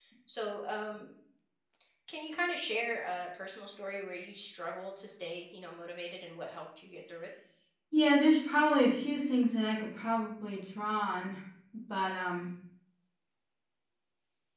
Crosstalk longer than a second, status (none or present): none